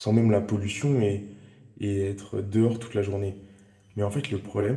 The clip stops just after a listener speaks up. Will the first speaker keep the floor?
Yes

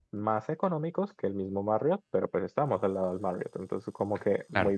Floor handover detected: Yes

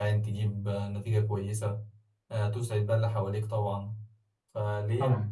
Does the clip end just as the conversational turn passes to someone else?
No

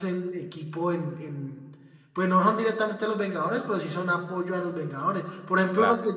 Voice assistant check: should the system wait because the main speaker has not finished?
Yes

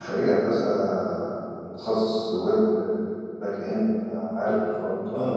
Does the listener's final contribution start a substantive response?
Yes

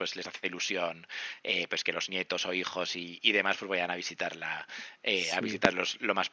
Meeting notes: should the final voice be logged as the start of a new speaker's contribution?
No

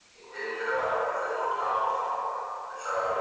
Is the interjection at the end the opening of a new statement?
No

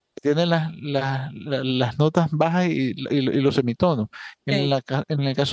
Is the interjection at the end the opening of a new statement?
No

